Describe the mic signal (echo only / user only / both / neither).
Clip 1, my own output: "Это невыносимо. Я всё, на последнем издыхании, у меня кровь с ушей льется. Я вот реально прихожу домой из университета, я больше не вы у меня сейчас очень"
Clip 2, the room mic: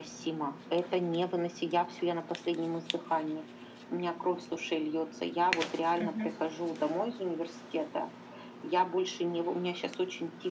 both